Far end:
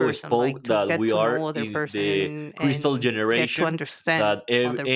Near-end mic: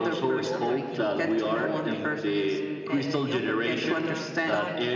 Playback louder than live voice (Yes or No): Yes